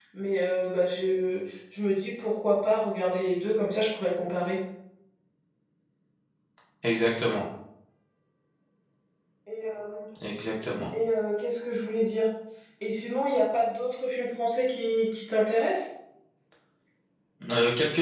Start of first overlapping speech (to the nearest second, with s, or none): none